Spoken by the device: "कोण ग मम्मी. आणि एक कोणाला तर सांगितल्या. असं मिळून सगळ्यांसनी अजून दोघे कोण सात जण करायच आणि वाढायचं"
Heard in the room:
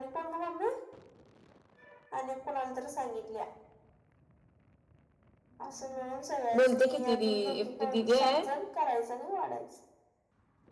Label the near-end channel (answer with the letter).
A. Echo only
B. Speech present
B